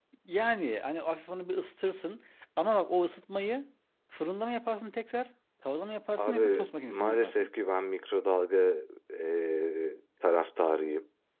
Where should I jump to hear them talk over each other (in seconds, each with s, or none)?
6.2 s